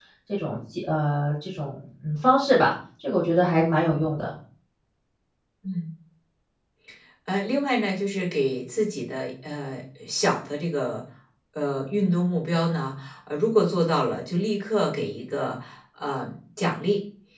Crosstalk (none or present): none